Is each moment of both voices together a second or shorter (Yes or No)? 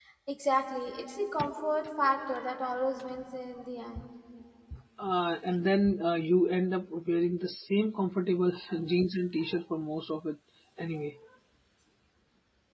Yes